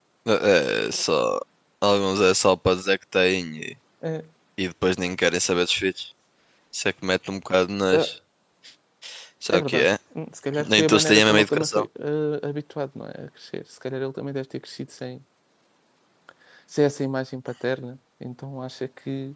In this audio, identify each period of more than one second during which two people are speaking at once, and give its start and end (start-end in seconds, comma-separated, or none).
10.6-11.8